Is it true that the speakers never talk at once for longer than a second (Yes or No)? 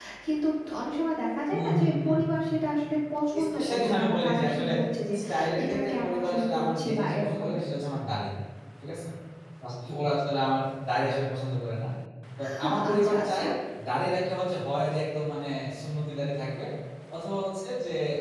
No